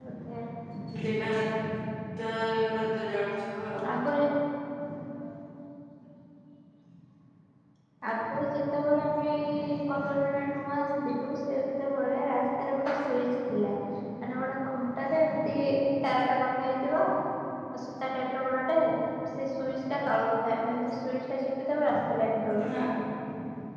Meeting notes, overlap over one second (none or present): none